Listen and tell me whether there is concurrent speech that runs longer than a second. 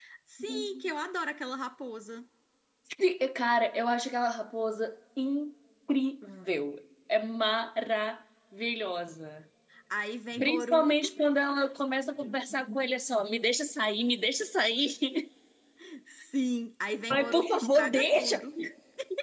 Yes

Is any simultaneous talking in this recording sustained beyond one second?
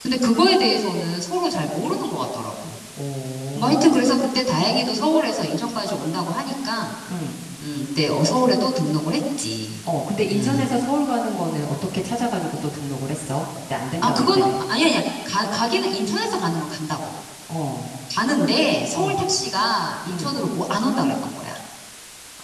No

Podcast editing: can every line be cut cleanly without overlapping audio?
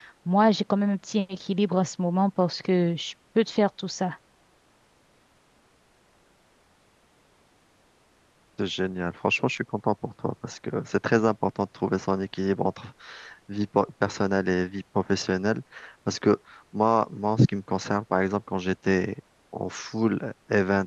Yes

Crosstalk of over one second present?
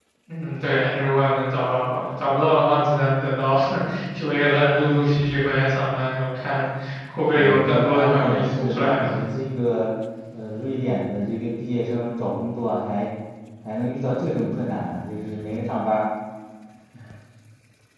Yes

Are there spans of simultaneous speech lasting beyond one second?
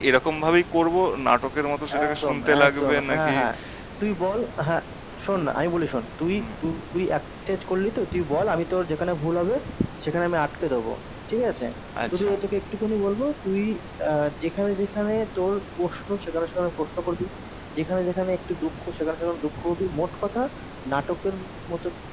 Yes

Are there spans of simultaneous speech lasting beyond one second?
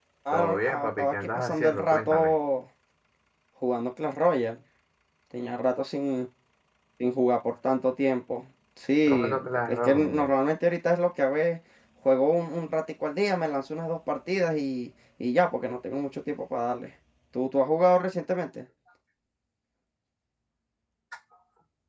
Yes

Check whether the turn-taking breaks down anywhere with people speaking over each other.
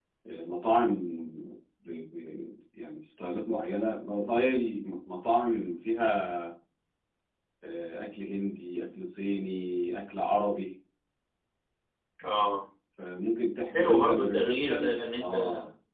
Yes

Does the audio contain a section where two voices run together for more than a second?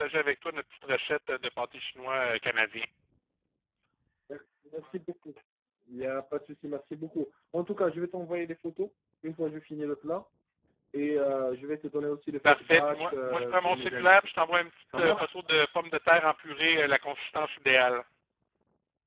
Yes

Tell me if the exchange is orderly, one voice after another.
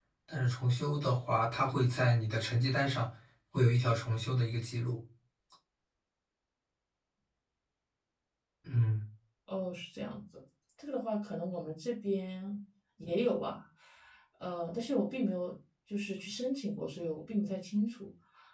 Yes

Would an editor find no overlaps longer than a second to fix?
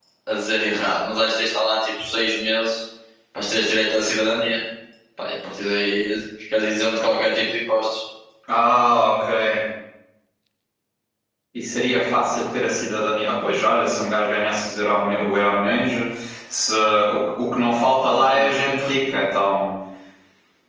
Yes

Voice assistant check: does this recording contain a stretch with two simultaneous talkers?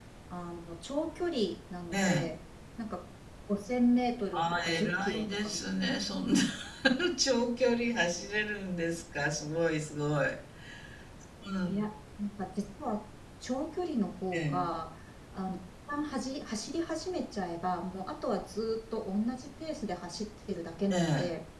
Yes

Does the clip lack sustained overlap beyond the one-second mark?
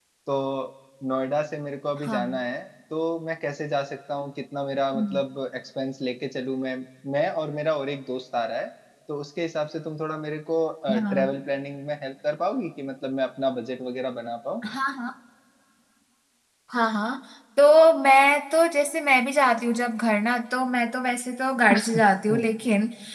Yes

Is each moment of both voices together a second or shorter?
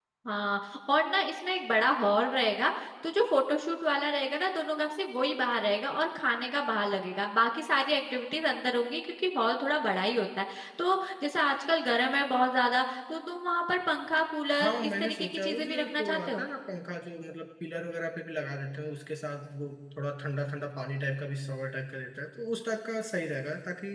No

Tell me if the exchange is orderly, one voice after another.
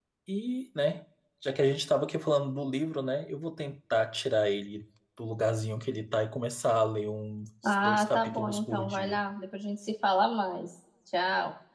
No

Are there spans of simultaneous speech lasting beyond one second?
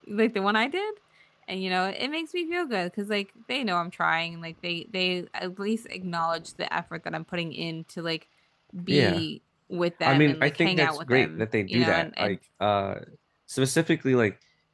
Yes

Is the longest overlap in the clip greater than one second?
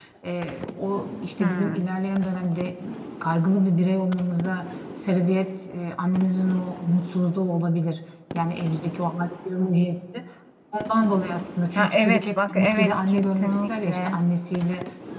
Yes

